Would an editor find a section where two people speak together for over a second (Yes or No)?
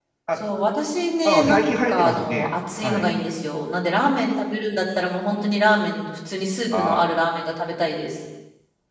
Yes